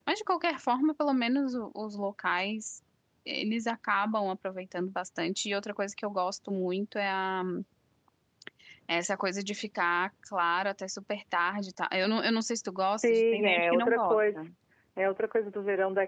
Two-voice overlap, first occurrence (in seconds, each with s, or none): 13.0 s